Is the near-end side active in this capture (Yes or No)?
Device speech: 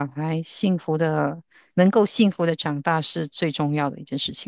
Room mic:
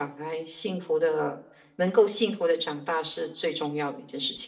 No